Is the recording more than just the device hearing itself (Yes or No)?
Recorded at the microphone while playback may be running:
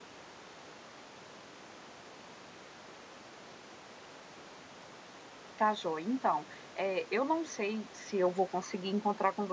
Yes